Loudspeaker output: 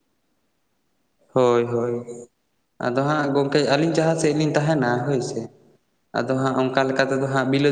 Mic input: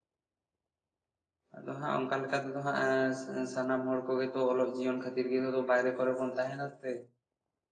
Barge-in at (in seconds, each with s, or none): 1.6 s